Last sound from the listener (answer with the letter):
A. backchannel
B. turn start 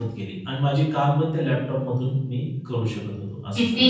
B